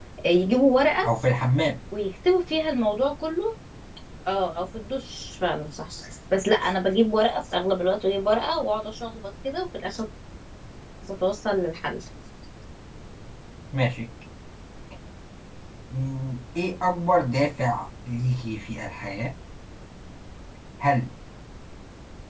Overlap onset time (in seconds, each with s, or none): none